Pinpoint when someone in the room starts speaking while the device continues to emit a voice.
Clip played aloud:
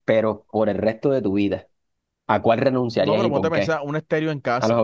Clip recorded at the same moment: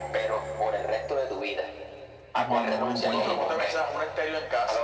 2.3 s

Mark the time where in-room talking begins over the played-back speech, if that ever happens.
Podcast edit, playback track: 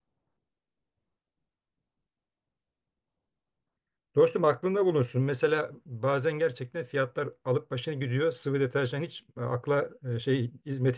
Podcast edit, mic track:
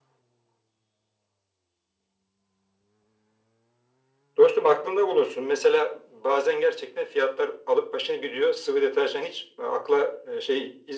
none

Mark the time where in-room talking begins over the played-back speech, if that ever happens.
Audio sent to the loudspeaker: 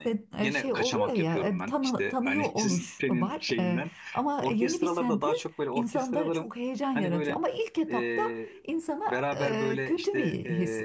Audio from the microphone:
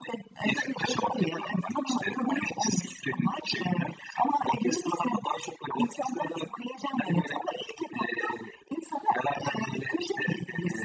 none

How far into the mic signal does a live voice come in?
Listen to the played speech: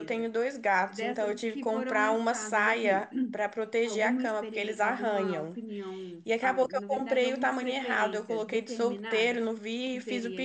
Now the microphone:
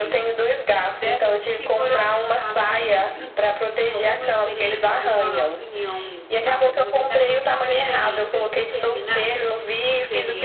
none

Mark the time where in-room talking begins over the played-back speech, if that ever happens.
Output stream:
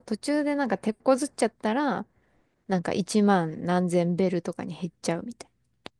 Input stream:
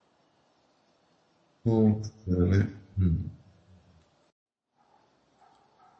1.6 s

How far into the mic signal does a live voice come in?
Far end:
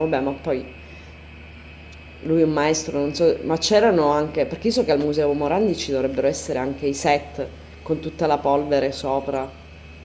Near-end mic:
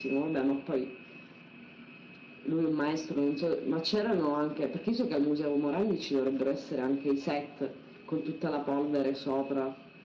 none

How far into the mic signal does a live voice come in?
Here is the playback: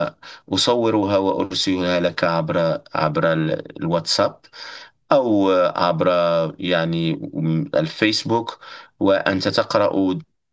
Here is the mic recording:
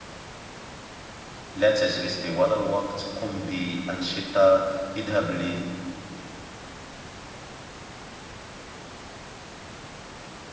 1.5 s

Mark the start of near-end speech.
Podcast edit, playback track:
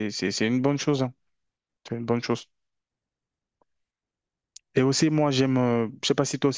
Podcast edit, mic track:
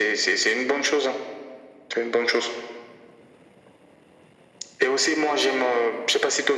none

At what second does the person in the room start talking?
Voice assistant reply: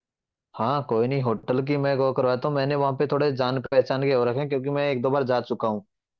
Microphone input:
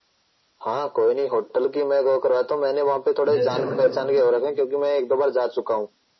3.3 s

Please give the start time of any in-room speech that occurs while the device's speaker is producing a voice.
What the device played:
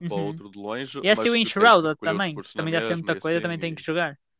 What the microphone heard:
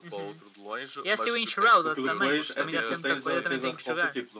1.8 s

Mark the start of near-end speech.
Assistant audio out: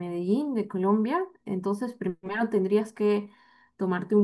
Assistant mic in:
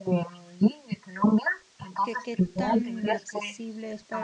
2.0 s

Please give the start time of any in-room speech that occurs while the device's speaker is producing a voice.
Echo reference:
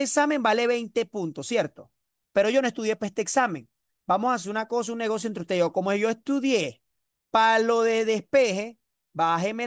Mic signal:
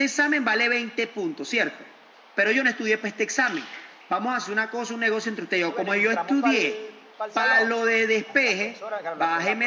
5.7 s

